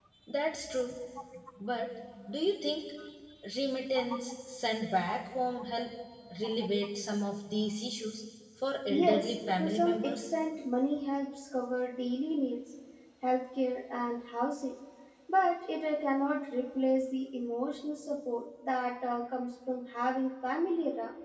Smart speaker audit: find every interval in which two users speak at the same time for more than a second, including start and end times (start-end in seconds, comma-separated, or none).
8.9-10.3